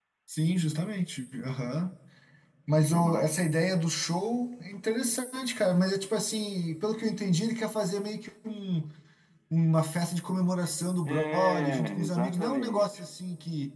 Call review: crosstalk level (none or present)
present